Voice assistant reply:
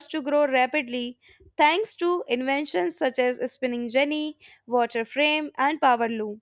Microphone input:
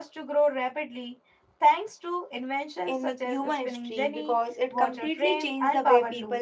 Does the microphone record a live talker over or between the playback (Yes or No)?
Yes